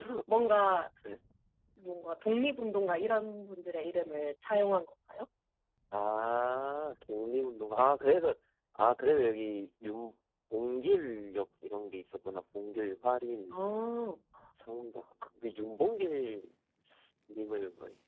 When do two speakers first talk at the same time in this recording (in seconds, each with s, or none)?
none